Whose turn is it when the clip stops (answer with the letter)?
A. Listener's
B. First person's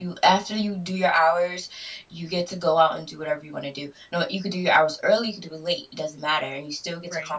B